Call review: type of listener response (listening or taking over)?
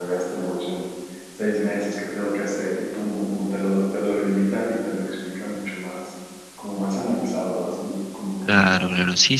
taking over